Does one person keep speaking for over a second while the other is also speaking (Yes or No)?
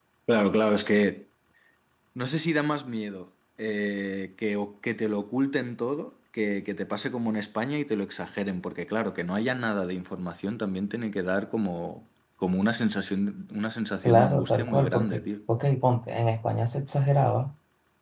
Yes